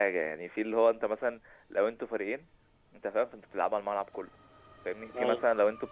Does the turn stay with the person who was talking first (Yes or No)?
Yes